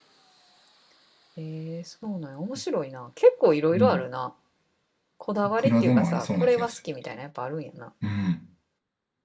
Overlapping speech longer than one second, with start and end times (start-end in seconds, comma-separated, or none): 5.4-6.8